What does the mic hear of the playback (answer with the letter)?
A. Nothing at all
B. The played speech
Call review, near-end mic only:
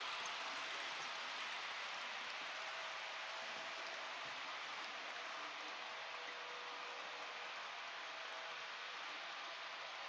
A